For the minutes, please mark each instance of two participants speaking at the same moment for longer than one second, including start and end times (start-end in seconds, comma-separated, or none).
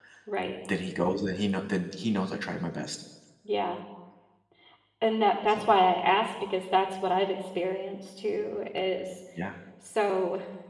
none